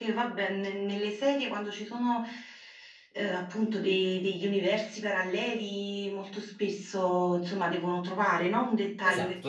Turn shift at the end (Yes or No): Yes